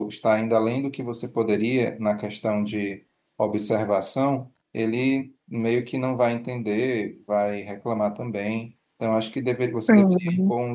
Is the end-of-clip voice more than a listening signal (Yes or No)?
No